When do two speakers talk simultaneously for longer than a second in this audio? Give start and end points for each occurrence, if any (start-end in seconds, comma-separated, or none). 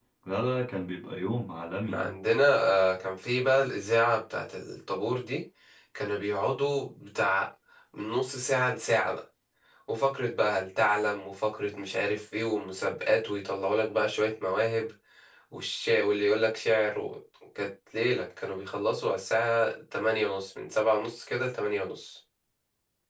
none